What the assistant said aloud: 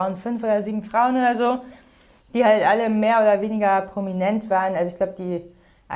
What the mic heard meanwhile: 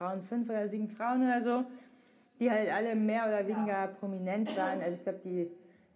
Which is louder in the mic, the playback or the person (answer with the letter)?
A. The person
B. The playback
B